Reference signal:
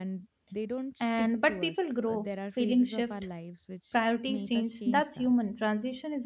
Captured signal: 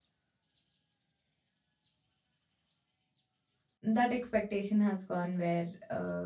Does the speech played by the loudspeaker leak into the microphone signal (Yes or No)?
No